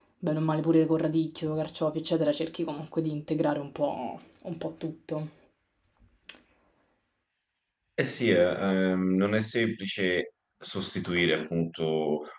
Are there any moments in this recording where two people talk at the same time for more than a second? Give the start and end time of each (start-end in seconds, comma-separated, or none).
none